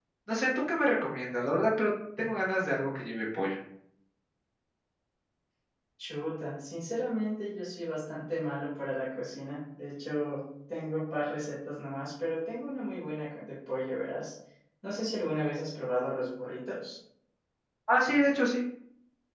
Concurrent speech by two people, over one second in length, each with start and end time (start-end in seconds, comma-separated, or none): none